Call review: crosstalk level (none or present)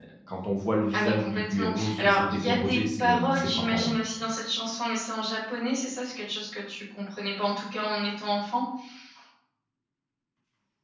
present